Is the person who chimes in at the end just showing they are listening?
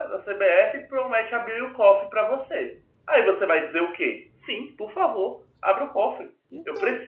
Yes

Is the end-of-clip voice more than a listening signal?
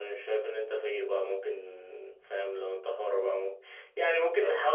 No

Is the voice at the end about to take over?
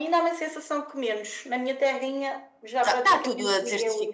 Yes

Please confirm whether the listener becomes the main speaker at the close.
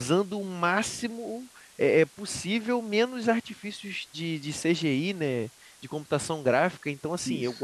No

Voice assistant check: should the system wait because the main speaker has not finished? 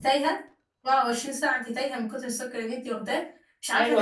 No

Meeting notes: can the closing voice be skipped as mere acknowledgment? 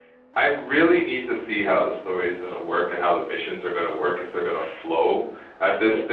Yes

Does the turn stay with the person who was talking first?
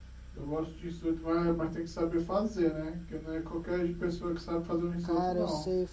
No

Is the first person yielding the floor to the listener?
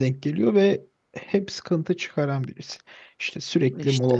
No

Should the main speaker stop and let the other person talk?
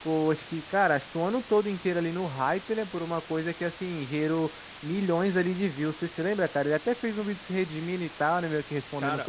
Yes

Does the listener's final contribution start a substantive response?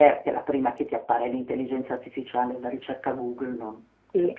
Yes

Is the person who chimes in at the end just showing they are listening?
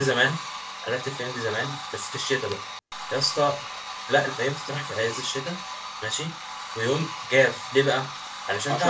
Yes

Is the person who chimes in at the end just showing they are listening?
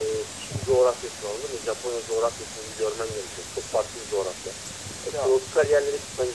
Yes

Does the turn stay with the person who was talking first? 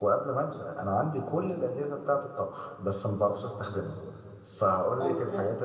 Yes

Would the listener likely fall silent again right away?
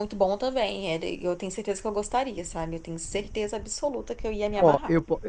No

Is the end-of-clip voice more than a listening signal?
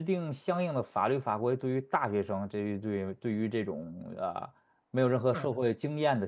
No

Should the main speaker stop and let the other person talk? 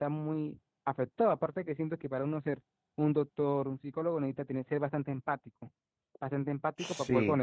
No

